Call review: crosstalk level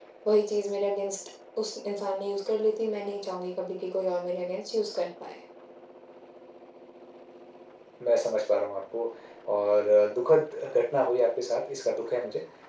none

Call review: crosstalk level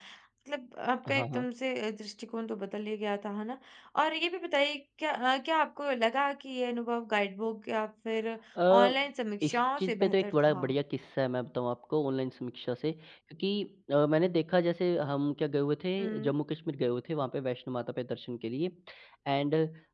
present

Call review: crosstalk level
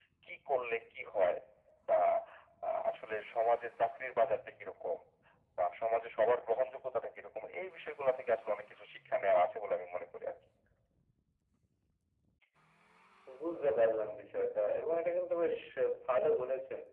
none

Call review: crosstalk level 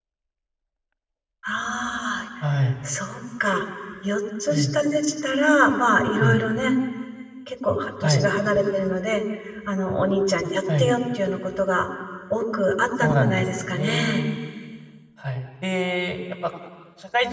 present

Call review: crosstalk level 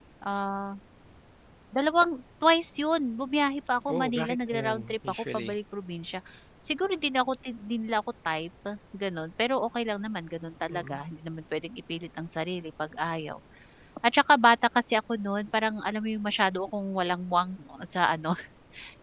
present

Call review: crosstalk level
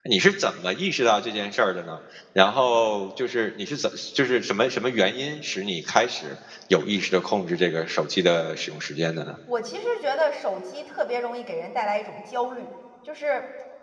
none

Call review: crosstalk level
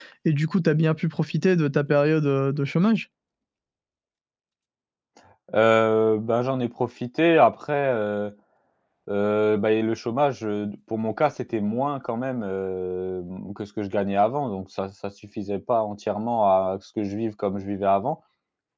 none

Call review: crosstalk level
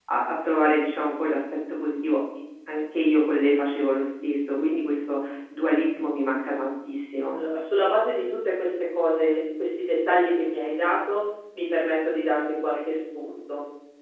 none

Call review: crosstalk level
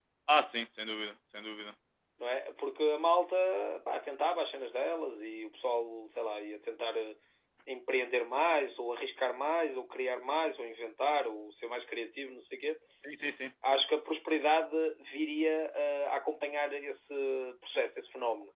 none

